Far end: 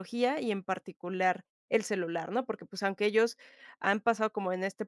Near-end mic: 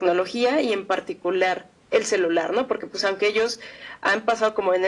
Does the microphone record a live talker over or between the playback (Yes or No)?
No